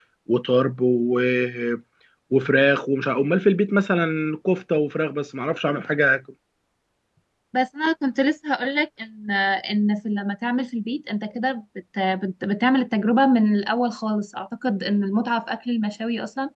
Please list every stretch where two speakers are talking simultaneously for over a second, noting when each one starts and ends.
none

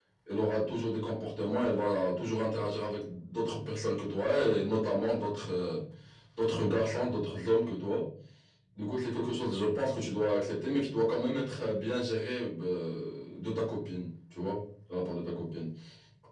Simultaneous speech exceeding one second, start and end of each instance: none

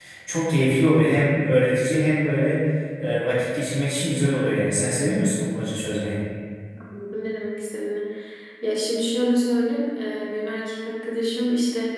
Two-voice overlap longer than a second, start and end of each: none

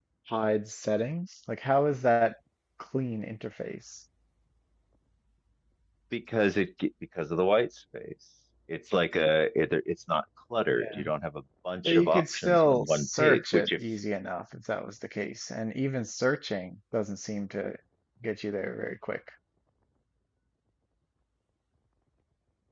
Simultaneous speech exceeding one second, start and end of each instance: 11.8-13.8

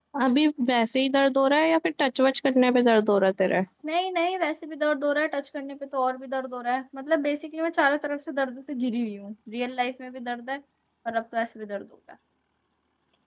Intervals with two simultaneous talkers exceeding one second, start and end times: none

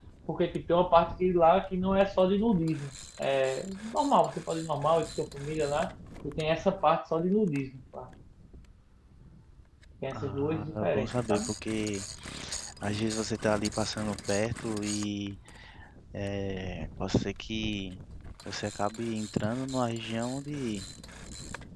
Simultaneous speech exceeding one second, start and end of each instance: 10.1-11.5

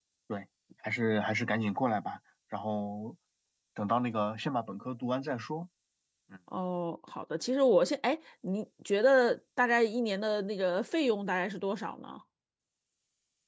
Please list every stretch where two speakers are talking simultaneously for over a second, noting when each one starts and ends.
none

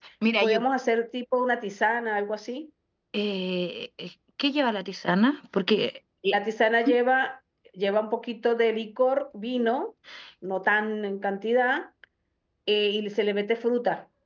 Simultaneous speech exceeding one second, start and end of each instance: none

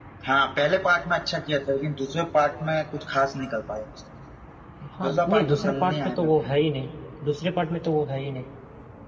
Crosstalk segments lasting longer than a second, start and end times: 5.1-6.3

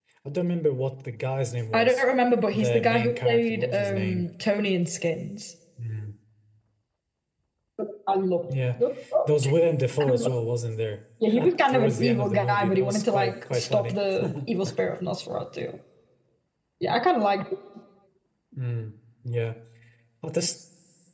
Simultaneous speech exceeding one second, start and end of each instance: 2.5-4.2, 11.3-13.9

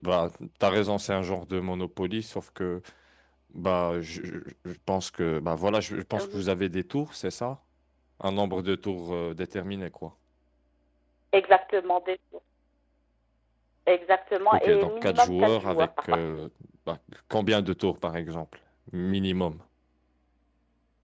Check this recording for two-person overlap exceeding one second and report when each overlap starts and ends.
14.5-16.4

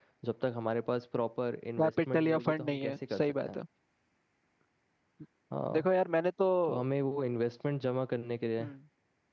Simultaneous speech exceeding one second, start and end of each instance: 1.8-3.6

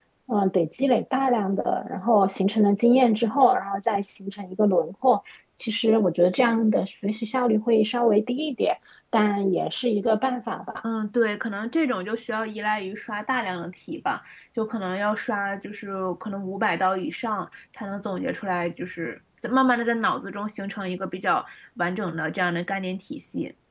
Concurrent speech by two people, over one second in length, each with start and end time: none

